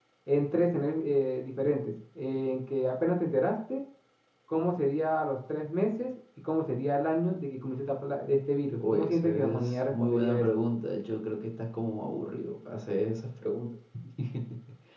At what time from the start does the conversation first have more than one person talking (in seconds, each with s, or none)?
8.8 s